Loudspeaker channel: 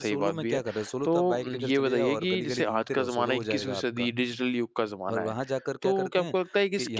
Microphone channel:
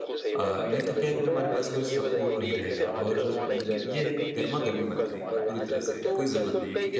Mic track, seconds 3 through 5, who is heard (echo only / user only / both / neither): both